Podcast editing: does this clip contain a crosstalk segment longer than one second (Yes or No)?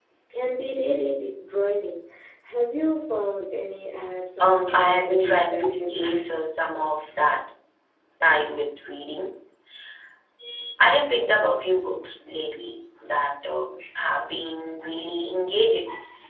Yes